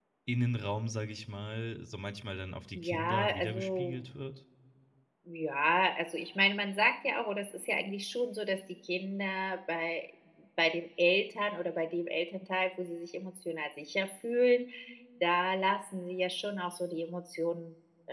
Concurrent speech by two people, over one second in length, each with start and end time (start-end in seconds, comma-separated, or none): 2.7-4.0